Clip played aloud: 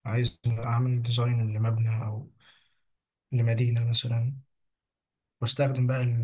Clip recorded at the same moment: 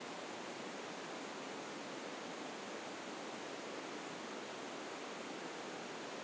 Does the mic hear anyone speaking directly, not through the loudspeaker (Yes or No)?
No